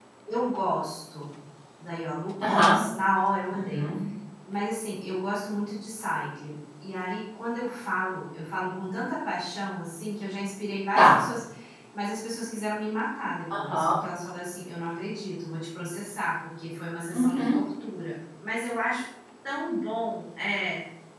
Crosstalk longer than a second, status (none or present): none